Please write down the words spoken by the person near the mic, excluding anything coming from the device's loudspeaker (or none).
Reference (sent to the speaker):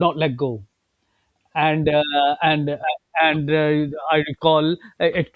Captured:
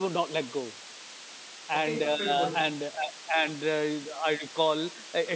okay, a pit bull